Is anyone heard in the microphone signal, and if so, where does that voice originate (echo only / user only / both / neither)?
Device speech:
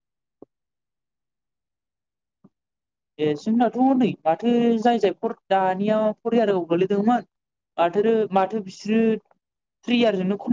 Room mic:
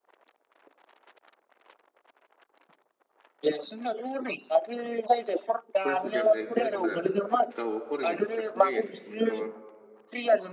both